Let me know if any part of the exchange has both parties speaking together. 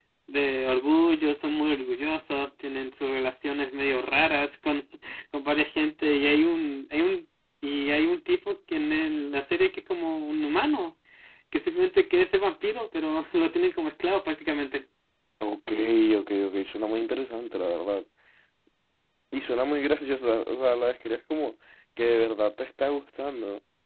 No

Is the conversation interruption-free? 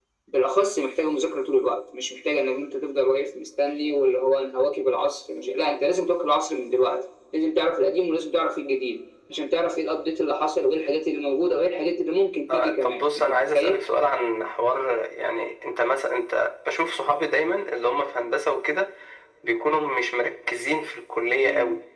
No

